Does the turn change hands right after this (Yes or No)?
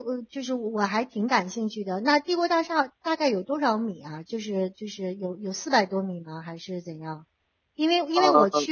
No